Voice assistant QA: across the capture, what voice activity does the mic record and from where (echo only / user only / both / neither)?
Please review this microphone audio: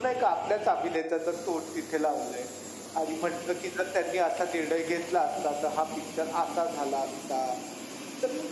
echo only